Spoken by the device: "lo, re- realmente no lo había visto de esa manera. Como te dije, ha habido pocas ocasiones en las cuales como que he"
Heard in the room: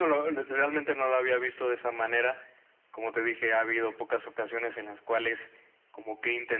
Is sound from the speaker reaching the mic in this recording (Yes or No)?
Yes